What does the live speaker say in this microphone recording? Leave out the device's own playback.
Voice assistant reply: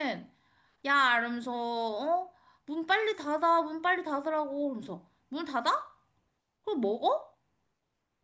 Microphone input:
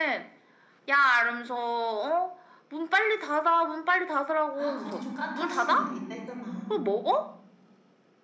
아, 거기 좀 까탈스러운 애들이 있다 했잖아.

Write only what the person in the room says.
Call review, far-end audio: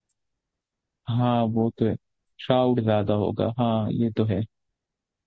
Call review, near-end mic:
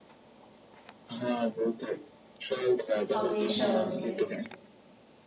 हमेशा होती है

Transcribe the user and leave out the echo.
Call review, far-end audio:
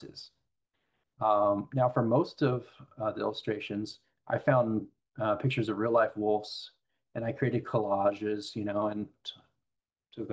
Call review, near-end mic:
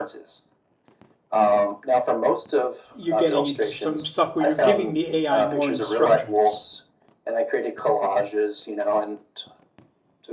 you're getting into some stuff where you're giving the AI more instructions.

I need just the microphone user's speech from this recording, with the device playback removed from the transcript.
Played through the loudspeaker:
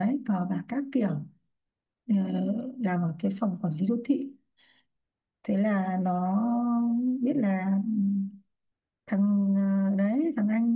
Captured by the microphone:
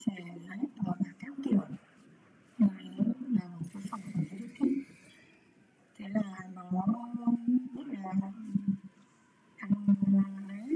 none

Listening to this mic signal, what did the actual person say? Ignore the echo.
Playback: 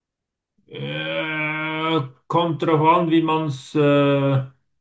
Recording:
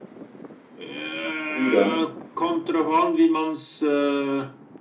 früh dann.

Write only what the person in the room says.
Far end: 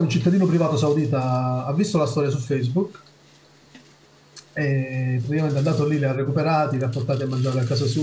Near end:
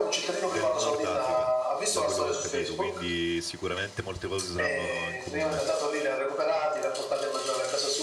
del Nord Africa, da quello che ho capito, quindi sicuramente molte cose saranno in comune.

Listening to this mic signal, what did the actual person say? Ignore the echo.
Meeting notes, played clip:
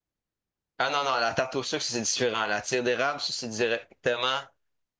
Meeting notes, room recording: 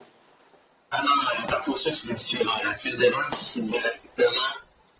none

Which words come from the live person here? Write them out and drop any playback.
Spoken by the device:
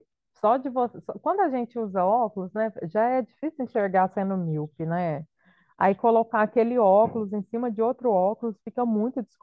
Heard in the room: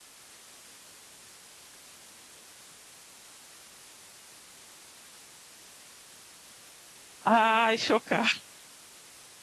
Ai, chocada.

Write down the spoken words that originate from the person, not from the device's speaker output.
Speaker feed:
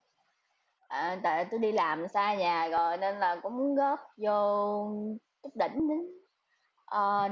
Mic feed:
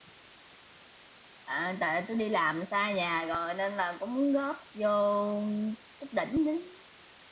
none

